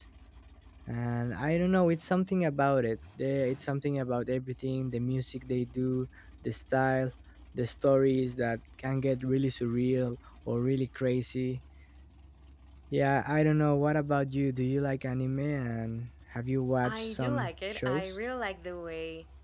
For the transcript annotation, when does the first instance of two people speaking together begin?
16.8 s

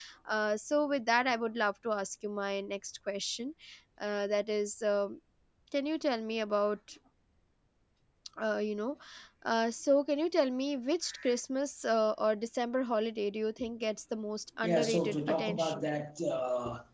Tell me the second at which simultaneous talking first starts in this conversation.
14.6 s

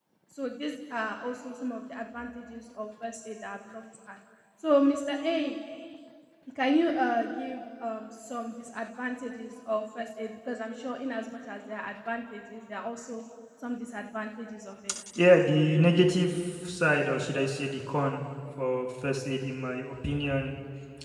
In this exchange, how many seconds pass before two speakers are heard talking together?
none

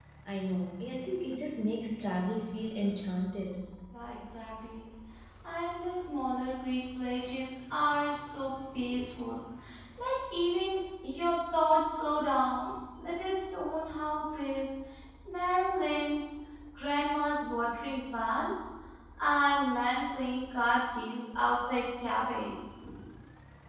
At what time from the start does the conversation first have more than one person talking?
none

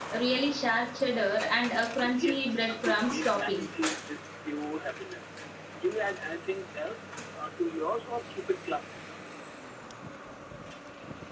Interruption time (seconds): 2.0 s

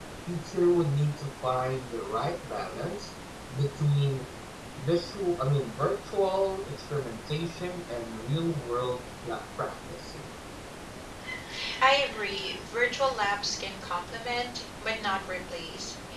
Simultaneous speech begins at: none

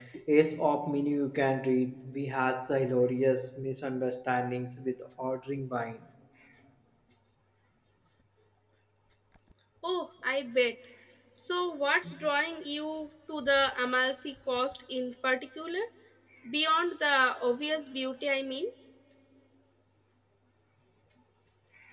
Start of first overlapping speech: none

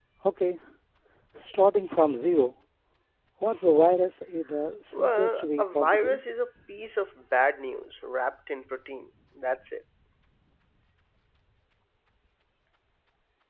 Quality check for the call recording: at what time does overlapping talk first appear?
4.9 s

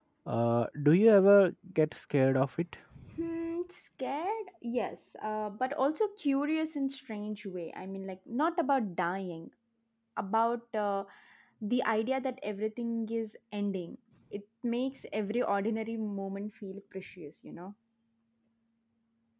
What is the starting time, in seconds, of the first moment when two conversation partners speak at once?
none

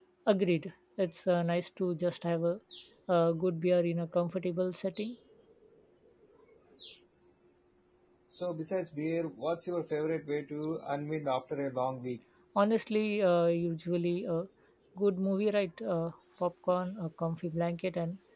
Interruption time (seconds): none

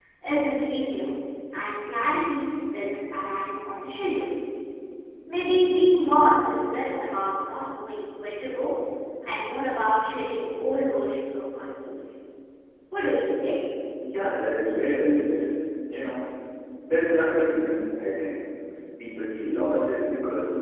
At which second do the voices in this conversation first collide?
none

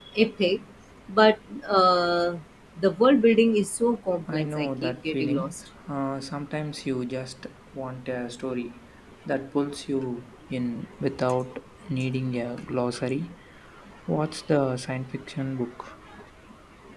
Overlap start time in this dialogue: 4.3 s

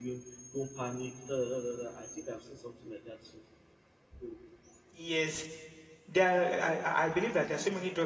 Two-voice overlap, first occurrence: none

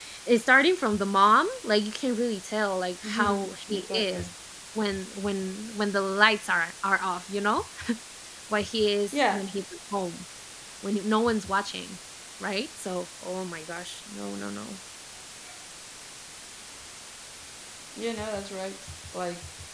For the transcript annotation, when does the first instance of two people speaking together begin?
3.0 s

